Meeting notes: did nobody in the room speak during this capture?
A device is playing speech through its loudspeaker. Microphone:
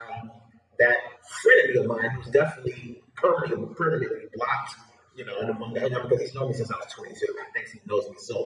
Yes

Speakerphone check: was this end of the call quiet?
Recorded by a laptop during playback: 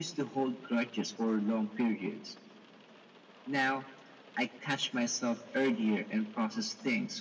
Yes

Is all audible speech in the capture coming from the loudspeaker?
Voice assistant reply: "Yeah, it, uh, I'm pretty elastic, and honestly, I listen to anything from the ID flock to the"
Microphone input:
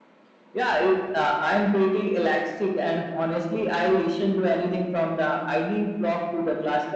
Yes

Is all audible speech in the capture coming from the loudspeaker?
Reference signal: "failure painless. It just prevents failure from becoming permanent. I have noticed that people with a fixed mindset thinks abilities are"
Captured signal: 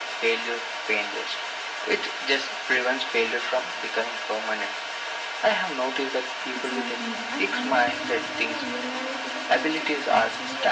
No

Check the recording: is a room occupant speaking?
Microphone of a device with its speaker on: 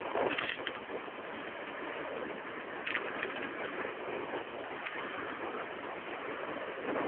No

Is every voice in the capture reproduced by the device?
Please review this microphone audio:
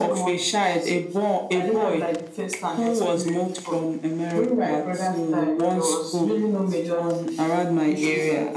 Yes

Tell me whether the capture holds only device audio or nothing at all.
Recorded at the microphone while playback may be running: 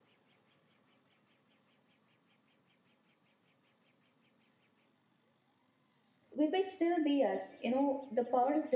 No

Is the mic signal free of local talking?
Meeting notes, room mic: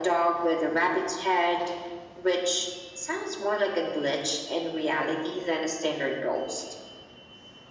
Yes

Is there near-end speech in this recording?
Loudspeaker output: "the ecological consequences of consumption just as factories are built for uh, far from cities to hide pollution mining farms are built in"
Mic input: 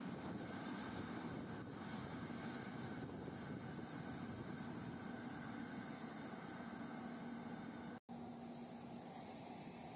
No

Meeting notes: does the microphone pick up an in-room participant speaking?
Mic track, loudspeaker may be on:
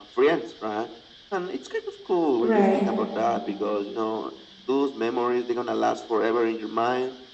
Yes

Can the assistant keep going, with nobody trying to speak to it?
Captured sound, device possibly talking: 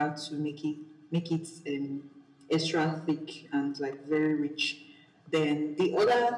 Yes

